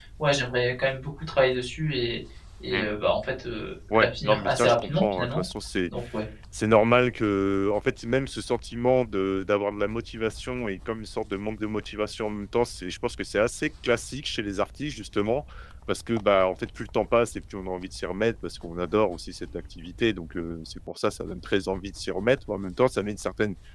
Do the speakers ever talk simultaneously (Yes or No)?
Yes